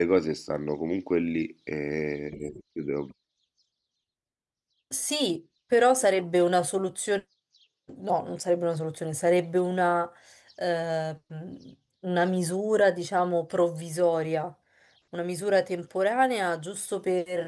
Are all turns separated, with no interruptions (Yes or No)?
Yes